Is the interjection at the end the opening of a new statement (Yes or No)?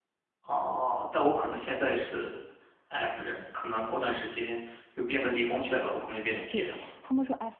Yes